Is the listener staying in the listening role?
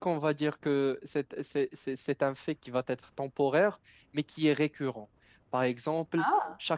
Yes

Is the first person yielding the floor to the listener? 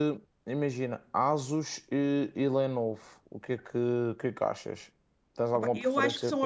Yes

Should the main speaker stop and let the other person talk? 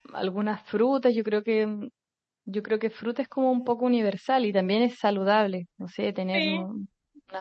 No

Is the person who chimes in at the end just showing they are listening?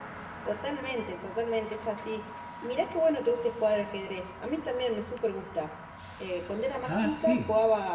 Yes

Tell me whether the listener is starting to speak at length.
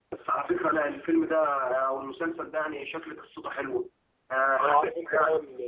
Yes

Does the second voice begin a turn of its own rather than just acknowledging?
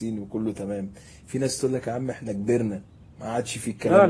Yes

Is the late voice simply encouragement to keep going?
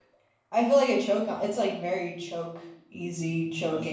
No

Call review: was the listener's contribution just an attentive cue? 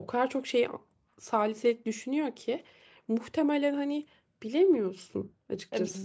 No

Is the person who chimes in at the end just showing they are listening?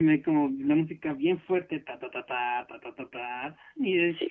No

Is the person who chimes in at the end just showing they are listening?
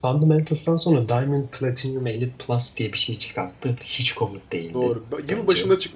No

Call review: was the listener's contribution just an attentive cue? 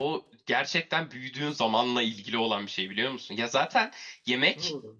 Yes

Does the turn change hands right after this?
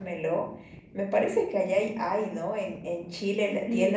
Yes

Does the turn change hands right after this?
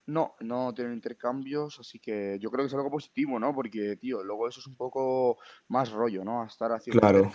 No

